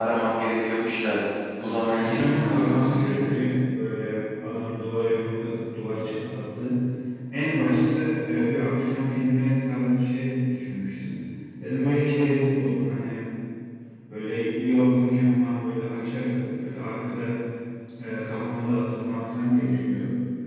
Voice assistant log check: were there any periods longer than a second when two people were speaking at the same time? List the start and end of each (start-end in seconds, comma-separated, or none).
1.9-3.3